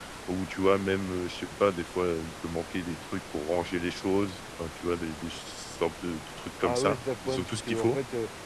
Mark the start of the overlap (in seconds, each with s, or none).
6.6 s